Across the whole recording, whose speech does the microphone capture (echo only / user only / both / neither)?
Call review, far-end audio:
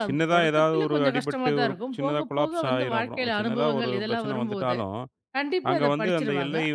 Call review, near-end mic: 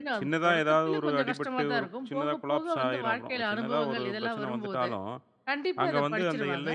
echo only